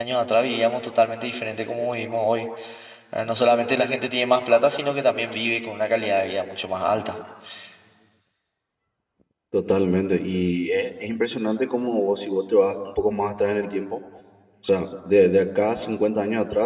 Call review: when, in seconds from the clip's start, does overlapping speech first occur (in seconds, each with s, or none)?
none